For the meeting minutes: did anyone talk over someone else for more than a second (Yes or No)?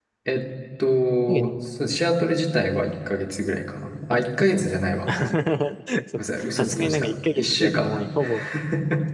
Yes